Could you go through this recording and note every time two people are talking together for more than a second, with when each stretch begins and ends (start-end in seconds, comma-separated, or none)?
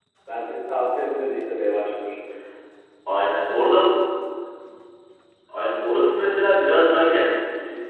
none